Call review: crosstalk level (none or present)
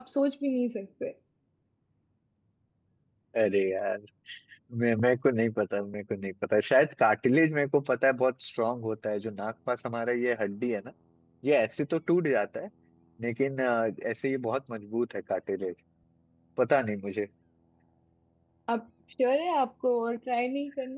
none